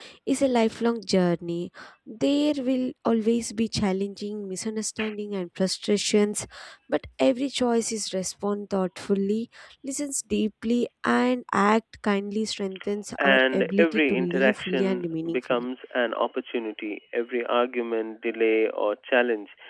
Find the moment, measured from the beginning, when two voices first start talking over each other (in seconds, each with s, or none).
13.2 s